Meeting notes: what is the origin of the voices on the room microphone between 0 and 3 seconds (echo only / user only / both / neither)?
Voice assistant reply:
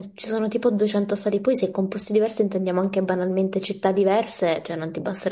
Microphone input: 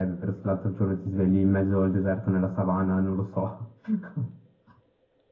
user only